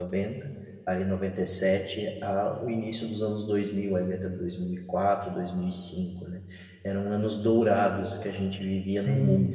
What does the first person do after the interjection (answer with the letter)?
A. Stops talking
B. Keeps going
A